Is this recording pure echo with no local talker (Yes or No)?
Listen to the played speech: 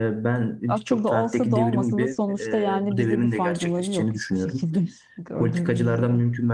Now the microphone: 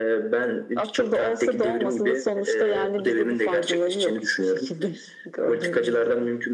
Yes